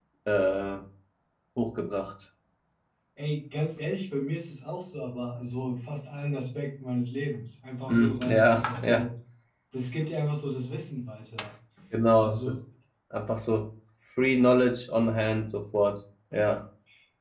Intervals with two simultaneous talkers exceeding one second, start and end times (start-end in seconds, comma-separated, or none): 7.9-9.1